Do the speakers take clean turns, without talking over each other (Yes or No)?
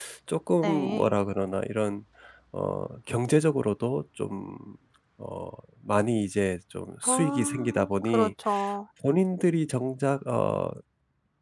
No